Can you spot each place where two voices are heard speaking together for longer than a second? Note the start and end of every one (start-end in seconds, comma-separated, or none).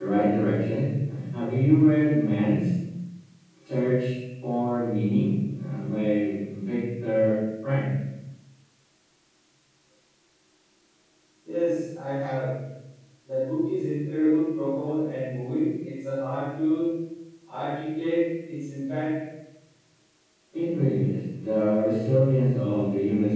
none